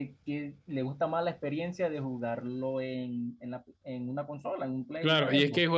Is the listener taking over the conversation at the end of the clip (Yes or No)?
Yes